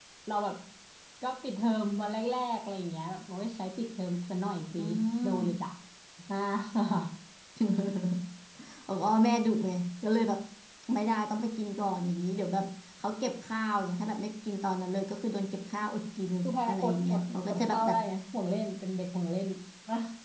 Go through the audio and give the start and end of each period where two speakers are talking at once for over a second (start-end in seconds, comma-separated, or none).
16.4-18.0